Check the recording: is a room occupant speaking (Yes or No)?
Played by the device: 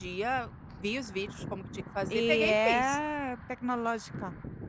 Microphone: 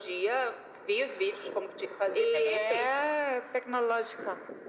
No